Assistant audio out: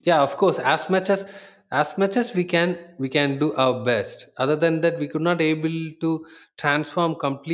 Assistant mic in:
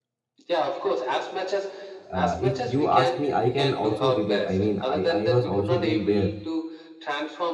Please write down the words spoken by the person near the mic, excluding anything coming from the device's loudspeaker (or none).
uh, if you ask me, I can also relate. I mean, I, I was also been there.